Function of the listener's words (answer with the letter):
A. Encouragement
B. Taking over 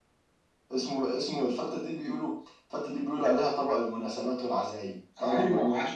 B